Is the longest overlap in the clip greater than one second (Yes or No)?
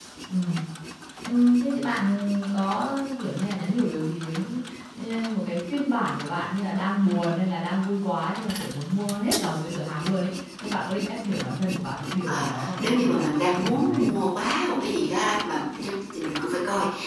Yes